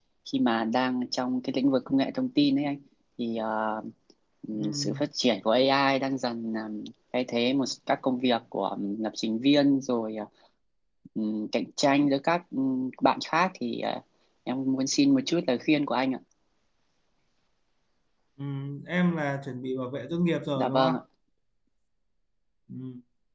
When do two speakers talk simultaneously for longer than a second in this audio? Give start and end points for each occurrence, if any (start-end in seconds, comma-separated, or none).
none